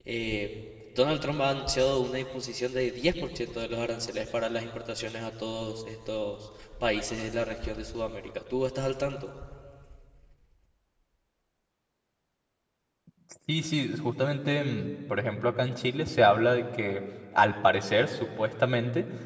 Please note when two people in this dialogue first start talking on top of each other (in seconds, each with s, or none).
none